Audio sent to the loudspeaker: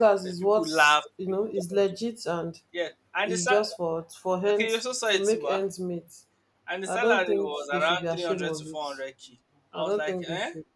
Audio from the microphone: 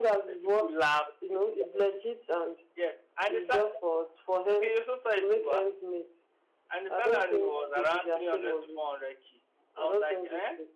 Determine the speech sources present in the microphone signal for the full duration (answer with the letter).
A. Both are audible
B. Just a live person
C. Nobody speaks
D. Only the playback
D